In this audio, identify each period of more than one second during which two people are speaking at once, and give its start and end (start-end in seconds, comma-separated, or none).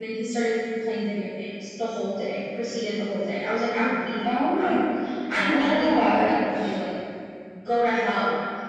5.3-6.8